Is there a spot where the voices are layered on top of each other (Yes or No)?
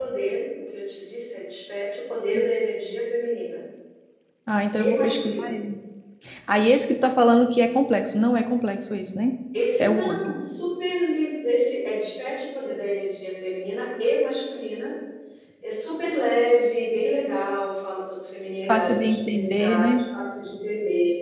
Yes